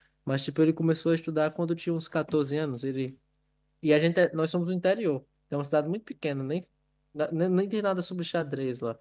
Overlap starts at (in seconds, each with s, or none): none